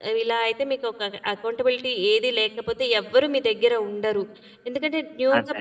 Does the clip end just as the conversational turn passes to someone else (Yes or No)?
No